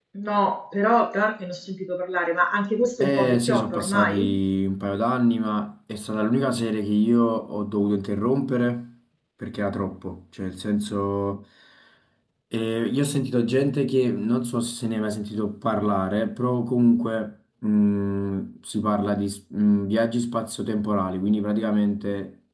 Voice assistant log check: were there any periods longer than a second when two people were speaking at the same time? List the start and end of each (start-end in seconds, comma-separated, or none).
3.0-4.4